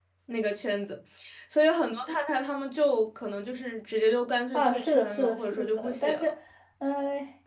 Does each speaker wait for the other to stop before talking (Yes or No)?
No